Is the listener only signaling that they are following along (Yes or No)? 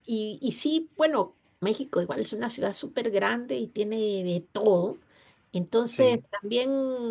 Yes